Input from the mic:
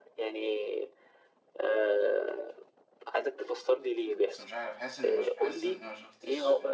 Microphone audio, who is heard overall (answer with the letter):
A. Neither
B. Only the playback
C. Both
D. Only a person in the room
C